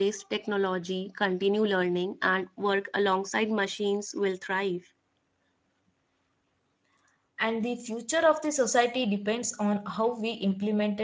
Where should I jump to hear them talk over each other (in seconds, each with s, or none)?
none